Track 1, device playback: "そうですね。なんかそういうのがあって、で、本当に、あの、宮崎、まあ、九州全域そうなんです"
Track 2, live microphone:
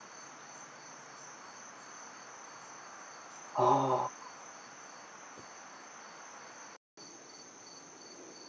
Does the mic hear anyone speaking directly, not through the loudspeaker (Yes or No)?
Yes